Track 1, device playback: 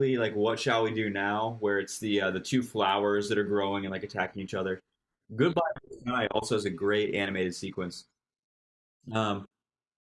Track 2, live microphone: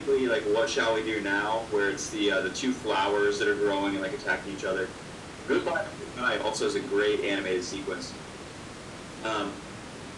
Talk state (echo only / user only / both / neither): echo only